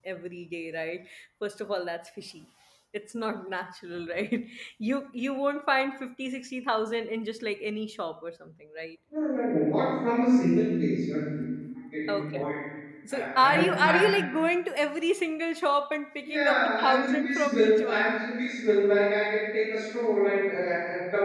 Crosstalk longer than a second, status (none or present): present